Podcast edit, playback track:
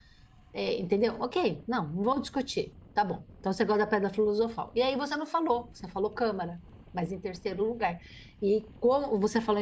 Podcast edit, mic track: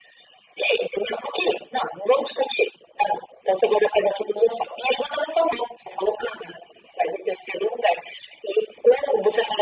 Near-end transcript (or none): none